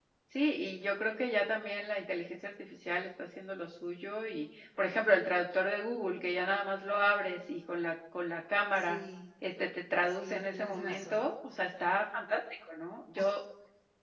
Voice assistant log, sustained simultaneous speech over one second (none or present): present